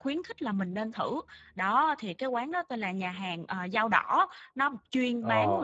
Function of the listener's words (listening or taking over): listening